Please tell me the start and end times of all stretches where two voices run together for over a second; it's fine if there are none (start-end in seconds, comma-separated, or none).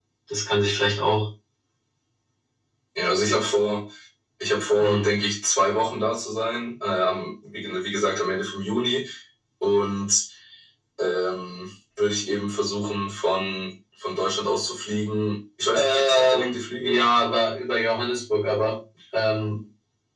15.7-17.0